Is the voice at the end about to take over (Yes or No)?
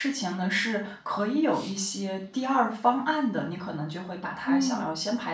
No